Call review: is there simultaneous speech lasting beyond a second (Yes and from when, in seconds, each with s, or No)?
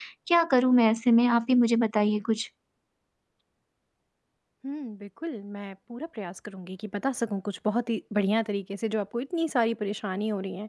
No